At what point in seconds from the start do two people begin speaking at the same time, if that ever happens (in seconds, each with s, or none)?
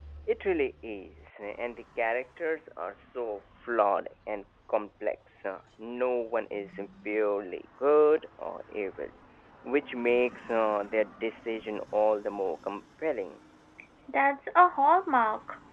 none